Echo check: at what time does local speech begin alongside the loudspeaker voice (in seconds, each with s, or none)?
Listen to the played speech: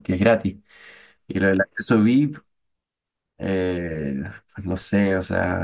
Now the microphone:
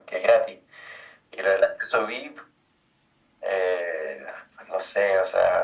none